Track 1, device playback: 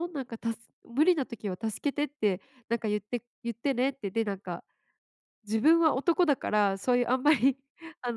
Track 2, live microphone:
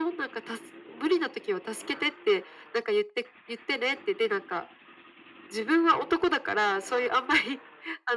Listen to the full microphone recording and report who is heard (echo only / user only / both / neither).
echo only